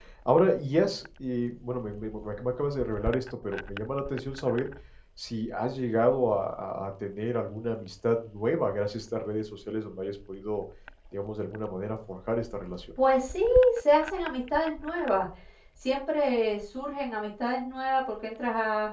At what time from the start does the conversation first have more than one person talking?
none

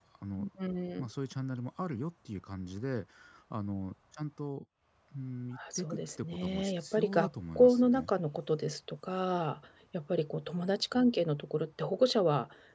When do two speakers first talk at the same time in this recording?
5.6 s

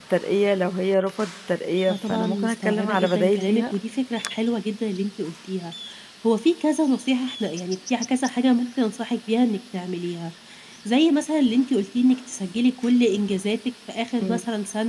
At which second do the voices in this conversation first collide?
1.9 s

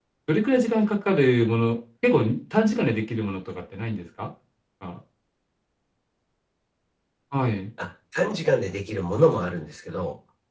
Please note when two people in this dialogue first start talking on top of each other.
none

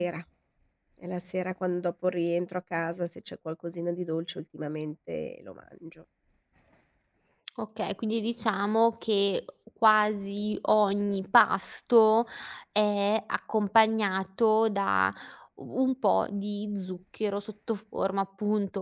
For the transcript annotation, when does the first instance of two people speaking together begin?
none

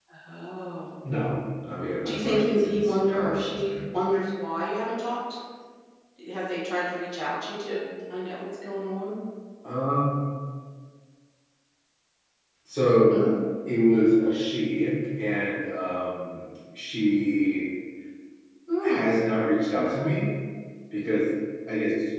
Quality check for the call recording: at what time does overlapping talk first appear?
2.0 s

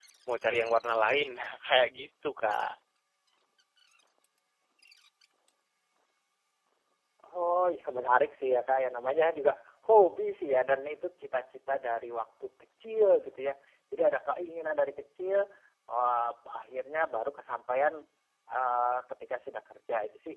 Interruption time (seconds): none

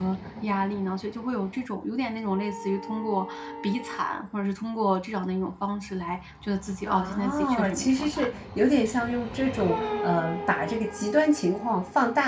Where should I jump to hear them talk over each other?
6.8 s

